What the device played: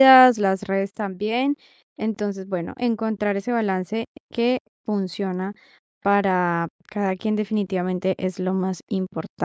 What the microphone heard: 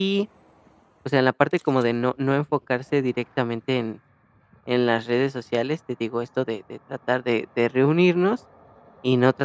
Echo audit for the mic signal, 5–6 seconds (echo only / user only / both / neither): user only